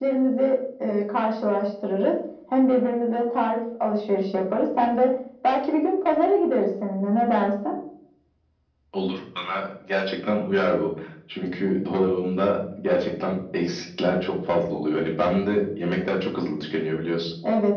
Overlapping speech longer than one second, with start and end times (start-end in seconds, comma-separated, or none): none